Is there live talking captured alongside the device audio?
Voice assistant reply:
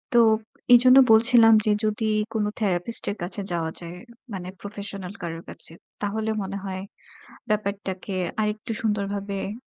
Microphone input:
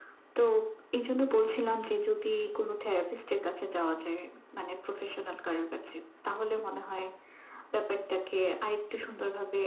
No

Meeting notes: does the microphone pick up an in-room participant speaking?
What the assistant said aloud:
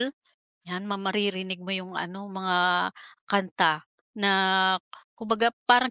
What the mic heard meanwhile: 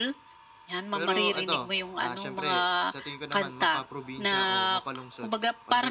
Yes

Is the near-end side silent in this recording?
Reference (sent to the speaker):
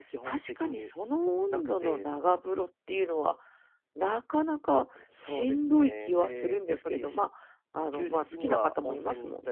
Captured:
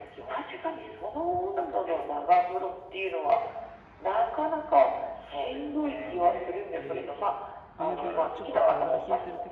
No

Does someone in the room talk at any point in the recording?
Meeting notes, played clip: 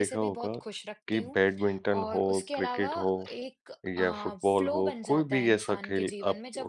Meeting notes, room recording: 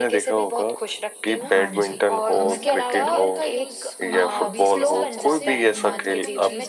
Yes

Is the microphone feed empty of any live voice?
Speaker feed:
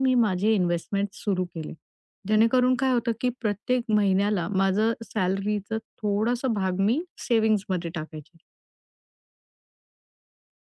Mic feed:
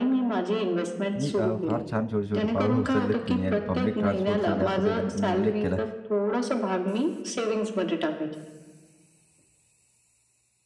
No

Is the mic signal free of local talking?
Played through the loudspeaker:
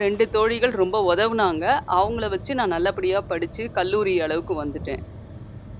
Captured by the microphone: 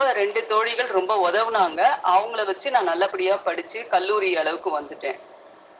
Yes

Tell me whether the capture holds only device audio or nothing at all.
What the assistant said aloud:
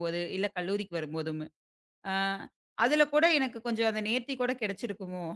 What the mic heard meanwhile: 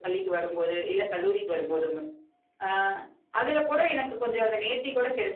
Yes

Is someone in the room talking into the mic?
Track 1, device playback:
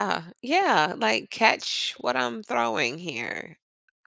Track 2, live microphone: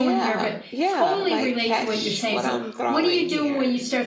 Yes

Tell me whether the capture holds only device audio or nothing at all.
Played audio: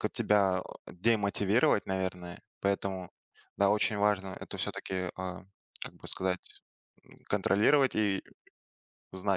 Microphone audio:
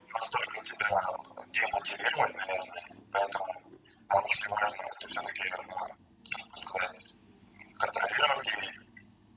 Yes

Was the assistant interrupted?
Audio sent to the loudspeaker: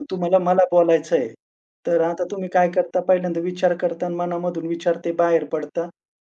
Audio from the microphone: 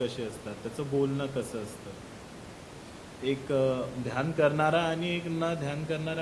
Yes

